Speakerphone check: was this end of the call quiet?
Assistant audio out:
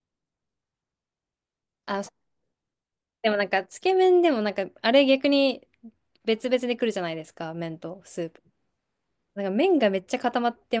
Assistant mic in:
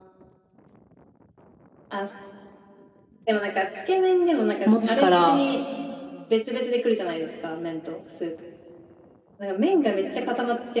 No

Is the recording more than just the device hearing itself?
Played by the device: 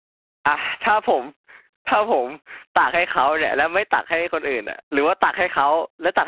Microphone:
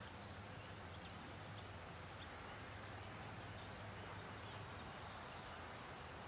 No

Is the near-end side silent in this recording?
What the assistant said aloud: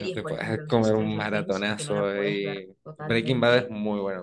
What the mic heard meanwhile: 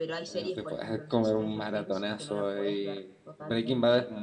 Yes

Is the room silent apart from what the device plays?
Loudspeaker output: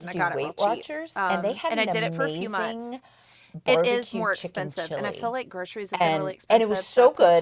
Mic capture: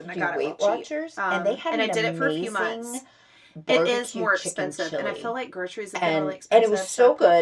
Yes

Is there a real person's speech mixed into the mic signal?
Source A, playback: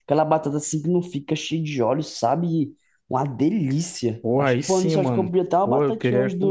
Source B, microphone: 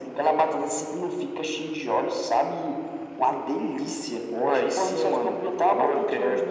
No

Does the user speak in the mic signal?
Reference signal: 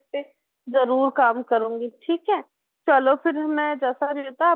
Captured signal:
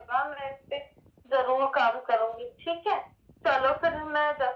No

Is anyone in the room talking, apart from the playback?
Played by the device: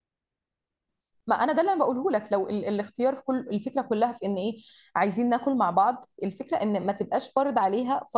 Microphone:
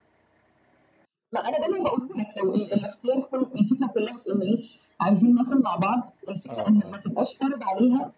Yes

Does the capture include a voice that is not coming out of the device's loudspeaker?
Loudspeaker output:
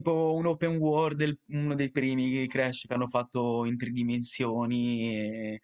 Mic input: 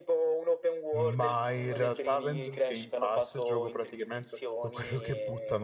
Yes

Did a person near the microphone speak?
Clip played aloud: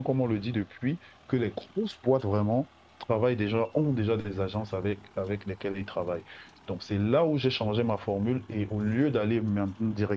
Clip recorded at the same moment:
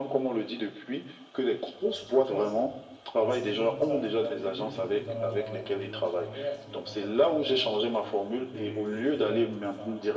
Yes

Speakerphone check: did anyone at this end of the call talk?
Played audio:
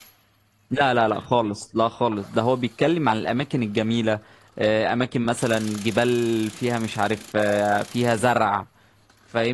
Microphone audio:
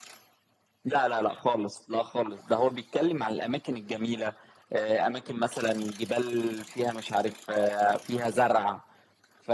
No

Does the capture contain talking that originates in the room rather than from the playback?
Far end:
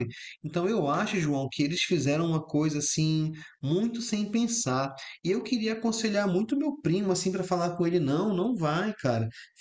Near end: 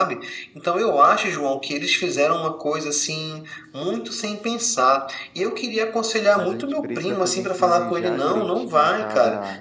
Yes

